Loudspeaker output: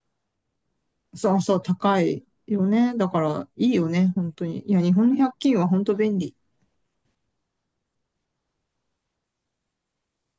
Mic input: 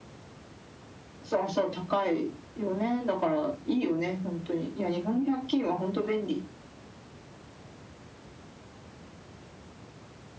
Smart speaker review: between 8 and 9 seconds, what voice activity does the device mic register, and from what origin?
neither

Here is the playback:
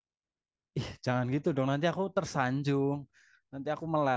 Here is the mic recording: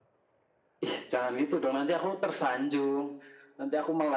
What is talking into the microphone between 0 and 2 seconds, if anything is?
echo only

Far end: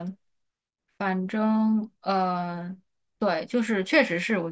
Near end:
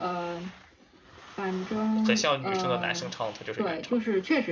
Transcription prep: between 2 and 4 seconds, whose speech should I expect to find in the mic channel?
both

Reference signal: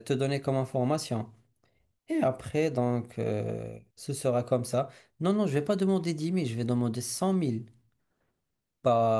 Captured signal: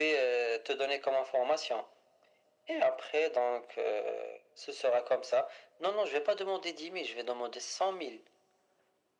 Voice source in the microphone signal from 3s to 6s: echo only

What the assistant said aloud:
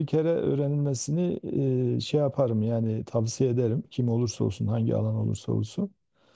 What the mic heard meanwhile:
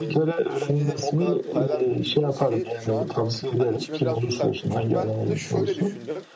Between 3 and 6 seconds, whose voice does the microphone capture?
both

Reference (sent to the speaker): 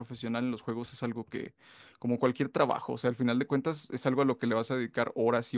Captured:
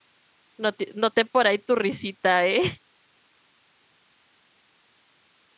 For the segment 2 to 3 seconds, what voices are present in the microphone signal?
user only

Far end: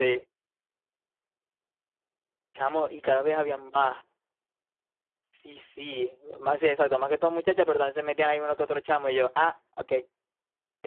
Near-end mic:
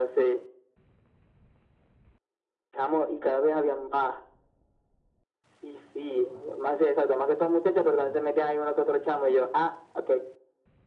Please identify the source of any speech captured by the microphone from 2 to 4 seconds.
echo only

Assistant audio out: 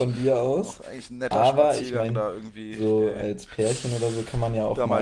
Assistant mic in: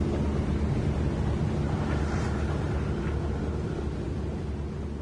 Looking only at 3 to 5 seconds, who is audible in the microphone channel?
neither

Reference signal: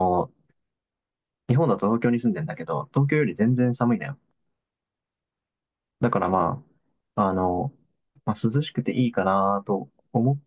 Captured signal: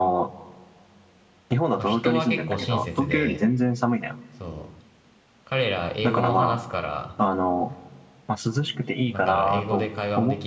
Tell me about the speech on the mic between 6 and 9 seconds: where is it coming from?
both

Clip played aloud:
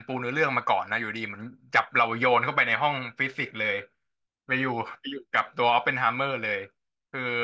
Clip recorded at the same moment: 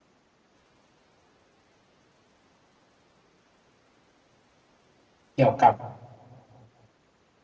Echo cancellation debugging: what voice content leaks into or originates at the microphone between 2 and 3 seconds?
neither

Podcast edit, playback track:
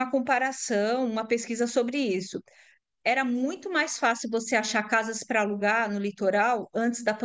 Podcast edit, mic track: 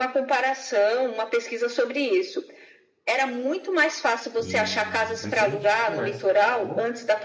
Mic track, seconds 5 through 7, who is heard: both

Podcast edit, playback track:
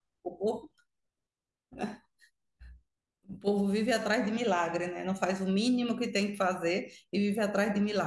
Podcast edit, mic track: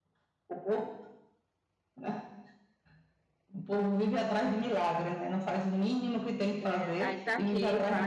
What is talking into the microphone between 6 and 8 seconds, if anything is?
both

